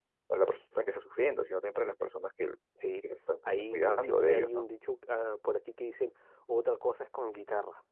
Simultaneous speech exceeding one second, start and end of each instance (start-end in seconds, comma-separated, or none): 3.5-4.7